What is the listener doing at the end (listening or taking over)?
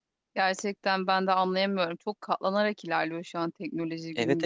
taking over